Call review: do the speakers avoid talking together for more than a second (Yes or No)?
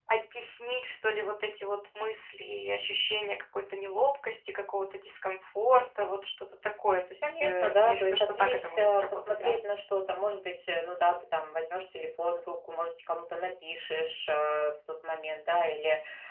No